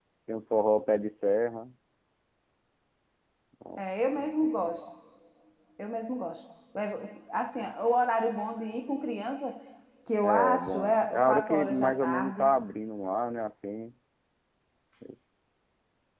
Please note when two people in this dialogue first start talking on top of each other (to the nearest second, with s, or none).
10 s